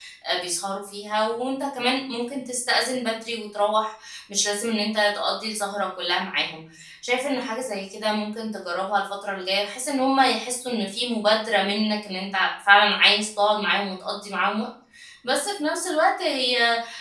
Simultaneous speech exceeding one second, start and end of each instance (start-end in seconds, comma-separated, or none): none